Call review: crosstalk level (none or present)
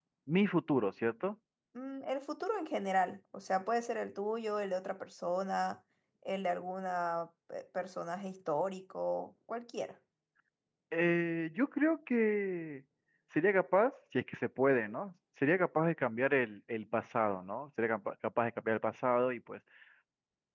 none